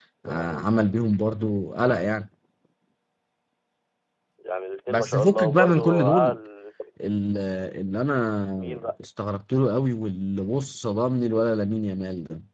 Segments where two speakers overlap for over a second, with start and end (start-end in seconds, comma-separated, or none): 4.9-6.4